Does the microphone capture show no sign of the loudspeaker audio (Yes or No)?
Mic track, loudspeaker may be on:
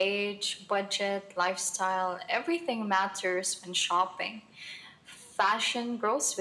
No